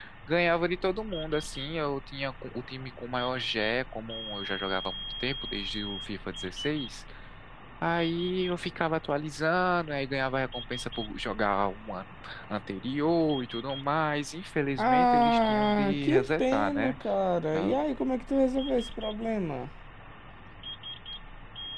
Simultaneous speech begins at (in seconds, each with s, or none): 14.8 s